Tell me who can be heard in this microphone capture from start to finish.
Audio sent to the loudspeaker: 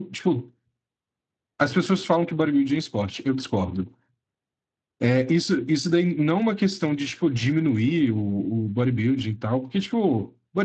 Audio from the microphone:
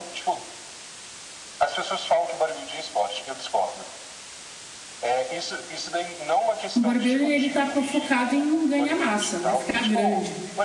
both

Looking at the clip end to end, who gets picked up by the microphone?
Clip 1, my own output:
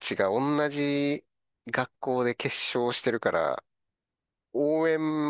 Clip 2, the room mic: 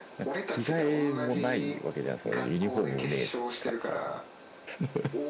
both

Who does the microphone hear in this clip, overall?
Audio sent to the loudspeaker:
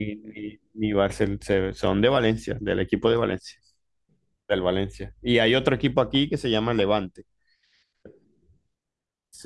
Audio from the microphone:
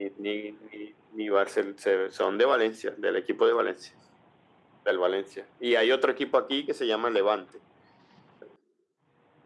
echo only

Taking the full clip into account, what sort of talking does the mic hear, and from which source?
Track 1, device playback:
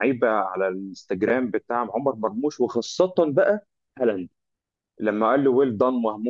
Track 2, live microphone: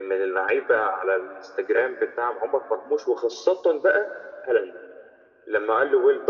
echo only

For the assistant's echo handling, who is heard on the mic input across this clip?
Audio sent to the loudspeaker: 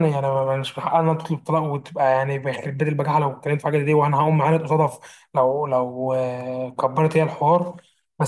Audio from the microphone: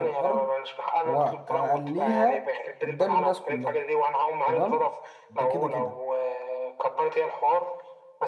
both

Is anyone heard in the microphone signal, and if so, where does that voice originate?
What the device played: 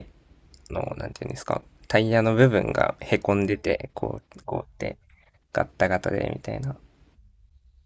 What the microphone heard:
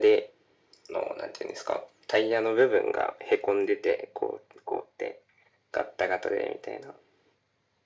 echo only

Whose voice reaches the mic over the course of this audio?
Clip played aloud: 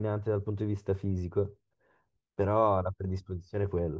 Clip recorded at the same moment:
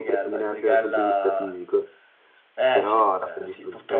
both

